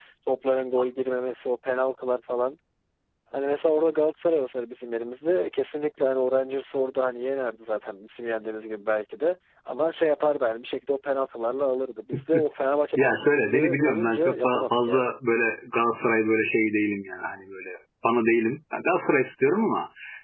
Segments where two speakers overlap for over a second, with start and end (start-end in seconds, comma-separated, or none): 13.0-15.1